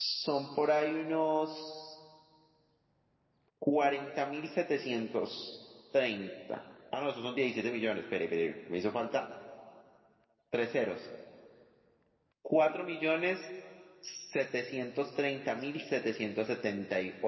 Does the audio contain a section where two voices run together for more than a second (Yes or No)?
No